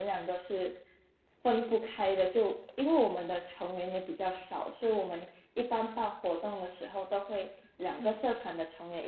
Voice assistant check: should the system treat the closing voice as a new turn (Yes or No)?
No